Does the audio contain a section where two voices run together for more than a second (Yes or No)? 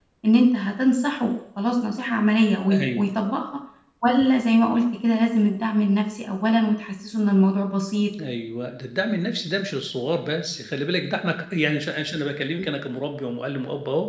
No